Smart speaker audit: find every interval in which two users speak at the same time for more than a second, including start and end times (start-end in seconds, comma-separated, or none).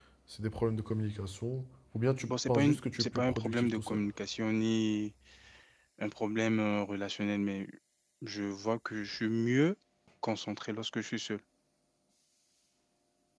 2.3-4.0